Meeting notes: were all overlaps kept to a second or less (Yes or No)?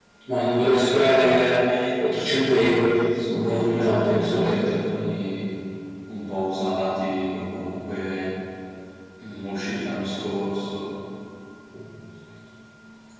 No